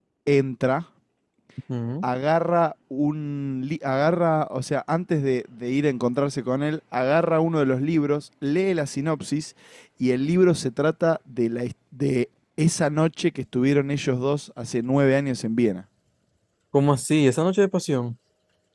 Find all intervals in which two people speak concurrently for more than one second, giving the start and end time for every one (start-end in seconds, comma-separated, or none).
none